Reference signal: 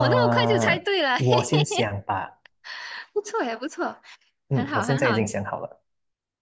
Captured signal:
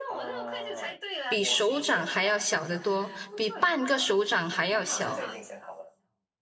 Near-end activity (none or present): present